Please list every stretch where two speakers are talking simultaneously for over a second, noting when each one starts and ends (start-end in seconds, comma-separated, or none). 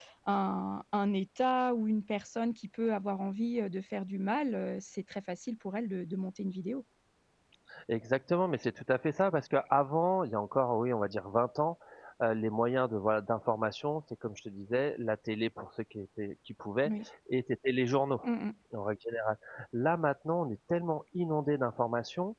none